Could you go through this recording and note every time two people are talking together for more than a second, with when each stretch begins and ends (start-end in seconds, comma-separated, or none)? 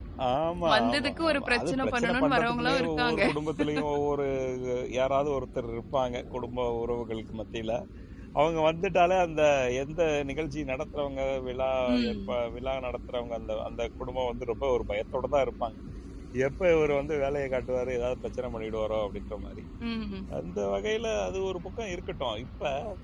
0.7-3.2